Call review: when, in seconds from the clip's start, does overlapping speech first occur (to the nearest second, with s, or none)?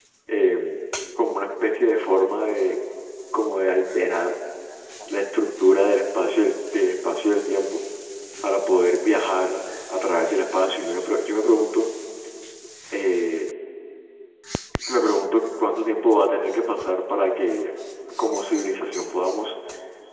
none